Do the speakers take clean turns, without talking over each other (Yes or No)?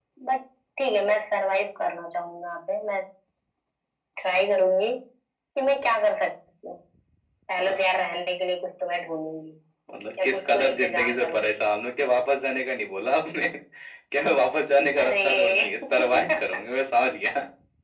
No